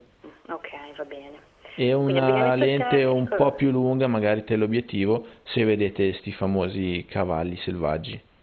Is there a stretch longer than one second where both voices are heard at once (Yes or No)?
Yes